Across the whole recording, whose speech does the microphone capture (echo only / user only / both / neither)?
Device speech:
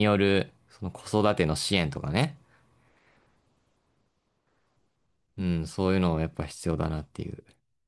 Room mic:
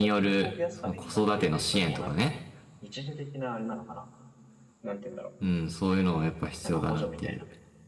both